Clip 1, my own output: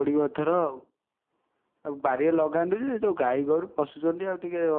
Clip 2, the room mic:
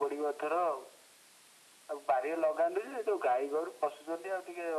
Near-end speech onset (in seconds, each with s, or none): none